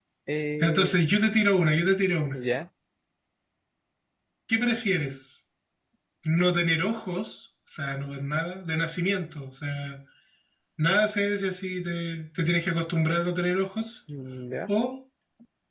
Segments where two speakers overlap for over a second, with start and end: none

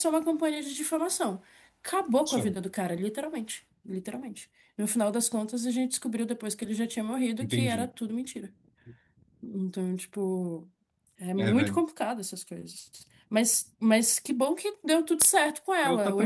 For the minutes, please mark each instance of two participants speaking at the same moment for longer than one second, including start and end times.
none

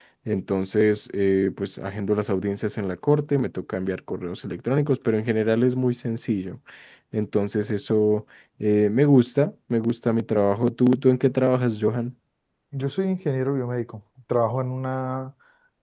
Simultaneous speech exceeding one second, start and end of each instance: none

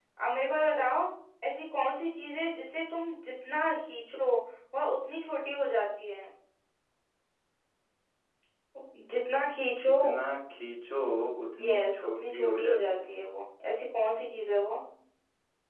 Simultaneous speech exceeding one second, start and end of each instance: 11.6-13.2

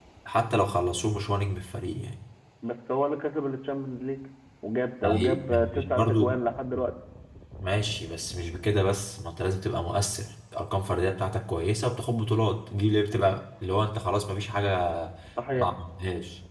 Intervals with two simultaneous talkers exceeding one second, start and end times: 5.0-6.3

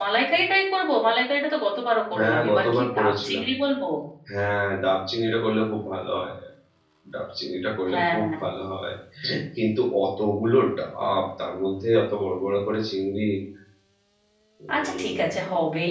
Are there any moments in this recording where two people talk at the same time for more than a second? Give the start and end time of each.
2.1-3.4

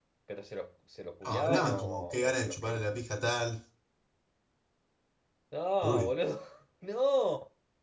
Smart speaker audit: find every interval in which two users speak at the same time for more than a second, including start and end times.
1.2-3.0

